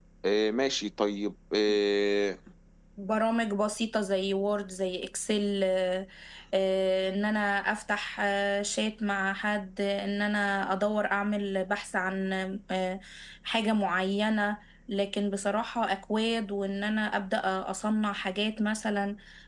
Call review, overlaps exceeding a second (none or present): none